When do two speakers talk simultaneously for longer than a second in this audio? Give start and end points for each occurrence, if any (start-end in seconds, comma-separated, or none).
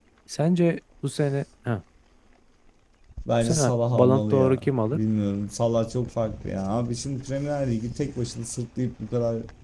3.4-5.0